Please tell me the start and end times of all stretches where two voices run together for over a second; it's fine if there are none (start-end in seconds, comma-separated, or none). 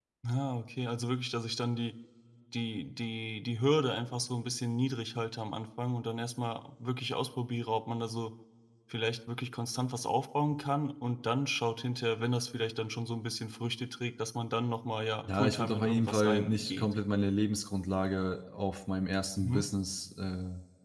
15.2-16.8